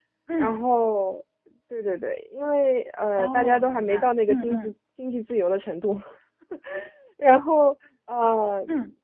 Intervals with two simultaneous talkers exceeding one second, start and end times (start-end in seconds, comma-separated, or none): 3.2-4.7